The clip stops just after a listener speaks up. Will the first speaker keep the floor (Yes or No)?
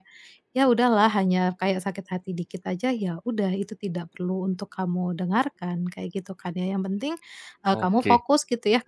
Yes